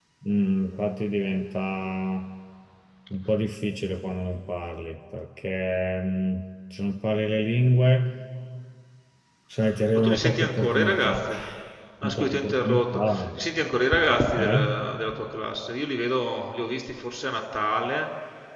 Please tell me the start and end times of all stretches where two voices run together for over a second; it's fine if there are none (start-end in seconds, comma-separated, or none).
9.9-11.3, 12.0-13.2